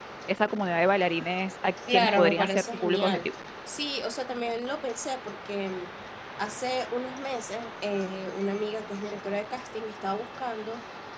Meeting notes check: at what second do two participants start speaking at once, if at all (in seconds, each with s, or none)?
1.9 s